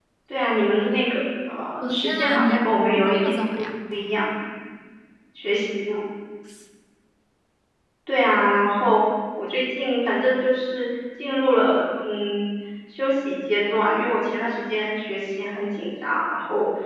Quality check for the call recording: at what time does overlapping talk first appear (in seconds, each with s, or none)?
1.8 s